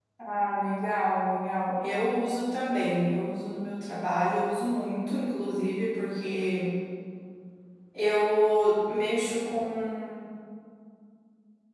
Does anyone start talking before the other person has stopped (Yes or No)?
No